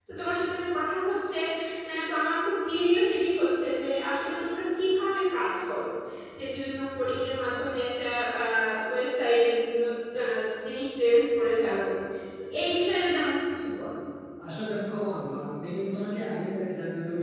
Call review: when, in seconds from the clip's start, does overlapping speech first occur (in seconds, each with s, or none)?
none